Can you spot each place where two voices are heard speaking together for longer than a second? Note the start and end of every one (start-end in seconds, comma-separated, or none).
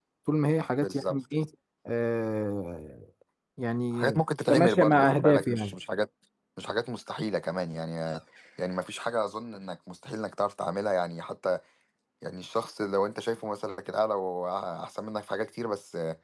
4.5-5.7